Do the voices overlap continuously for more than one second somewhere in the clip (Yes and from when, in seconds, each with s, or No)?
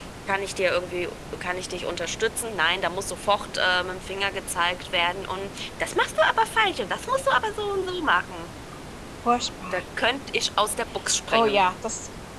No